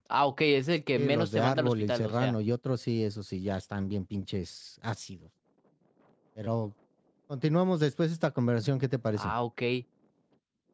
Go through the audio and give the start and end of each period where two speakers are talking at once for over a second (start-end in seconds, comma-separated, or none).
1.0-2.4